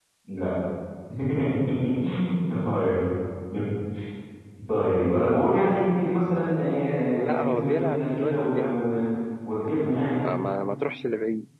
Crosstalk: present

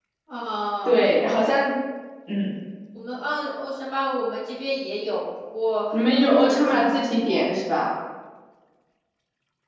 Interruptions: present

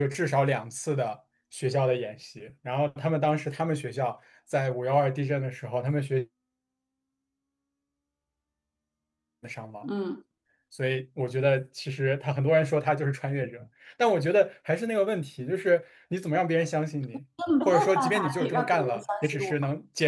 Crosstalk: present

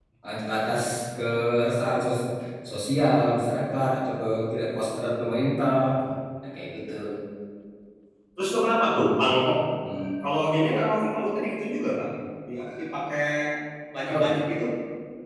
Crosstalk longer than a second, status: none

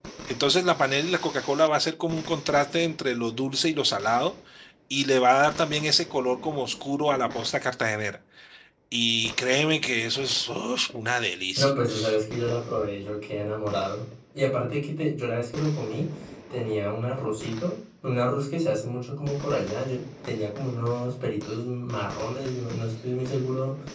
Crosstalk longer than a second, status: none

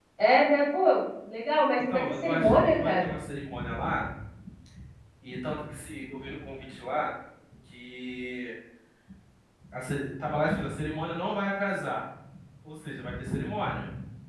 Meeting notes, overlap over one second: present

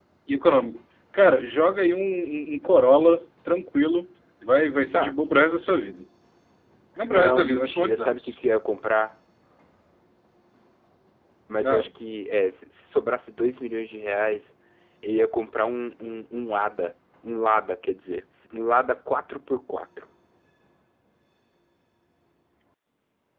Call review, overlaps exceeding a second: present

